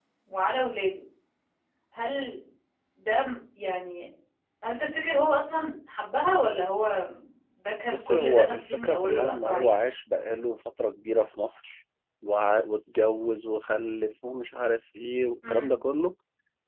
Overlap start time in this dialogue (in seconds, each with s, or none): 7.9 s